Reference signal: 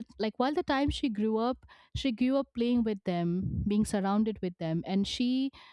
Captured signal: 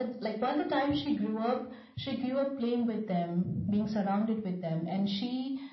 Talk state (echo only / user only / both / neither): echo only